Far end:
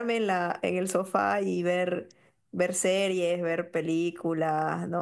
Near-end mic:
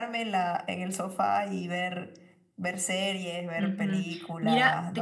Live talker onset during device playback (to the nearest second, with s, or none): 4 s